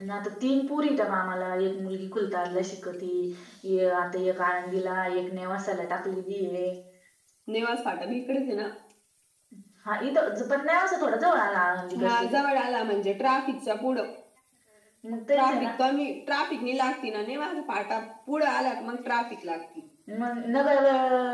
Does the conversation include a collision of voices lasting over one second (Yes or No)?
No